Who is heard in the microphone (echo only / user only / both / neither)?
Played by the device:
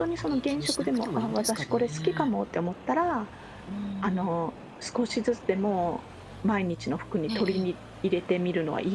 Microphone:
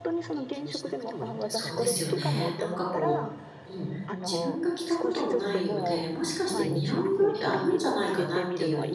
both